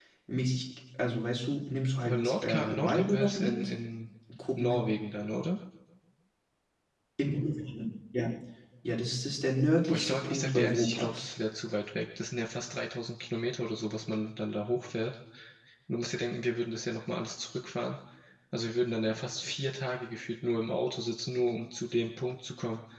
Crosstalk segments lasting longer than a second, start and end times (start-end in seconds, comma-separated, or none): 2.0-3.6, 9.9-11.3